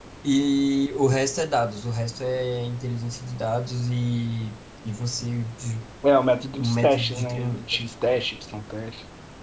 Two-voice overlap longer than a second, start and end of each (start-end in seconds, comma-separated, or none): 6.5-7.8